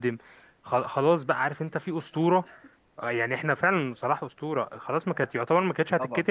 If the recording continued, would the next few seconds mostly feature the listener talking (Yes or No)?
No